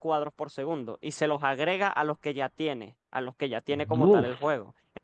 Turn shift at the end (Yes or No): No